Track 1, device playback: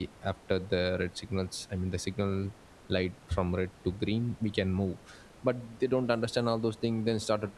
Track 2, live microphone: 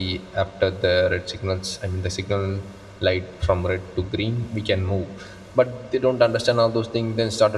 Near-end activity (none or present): none